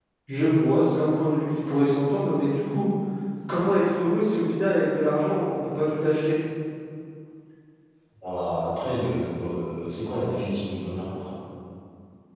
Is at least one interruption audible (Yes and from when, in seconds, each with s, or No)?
No